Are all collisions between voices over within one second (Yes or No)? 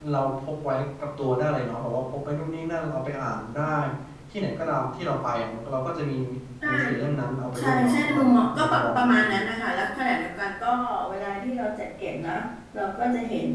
No